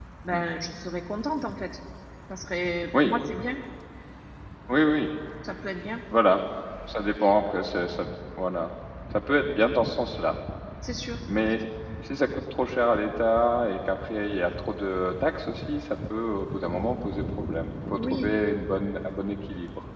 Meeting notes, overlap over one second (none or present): none